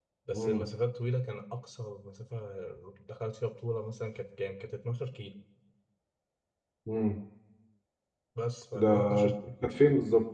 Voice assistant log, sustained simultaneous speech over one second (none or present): none